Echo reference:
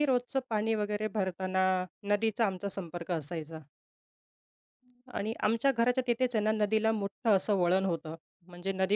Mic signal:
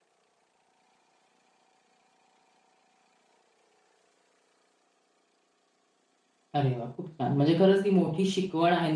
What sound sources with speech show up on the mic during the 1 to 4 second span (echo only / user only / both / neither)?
neither